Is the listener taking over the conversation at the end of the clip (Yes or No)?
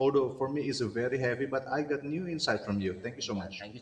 Yes